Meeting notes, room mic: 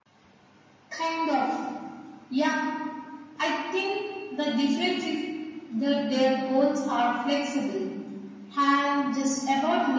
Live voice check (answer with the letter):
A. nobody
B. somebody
A